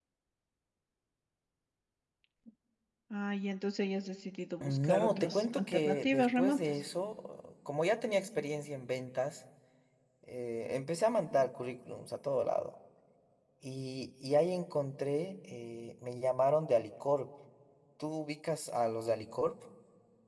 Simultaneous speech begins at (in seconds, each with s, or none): 4.6 s